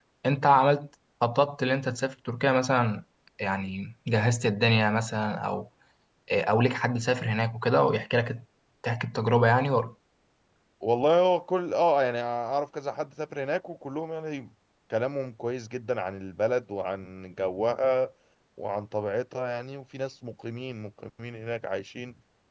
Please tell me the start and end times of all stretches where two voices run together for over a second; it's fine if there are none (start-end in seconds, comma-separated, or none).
none